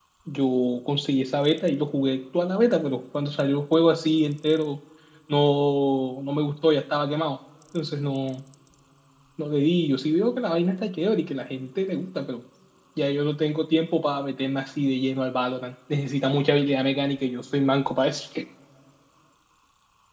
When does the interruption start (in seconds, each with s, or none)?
none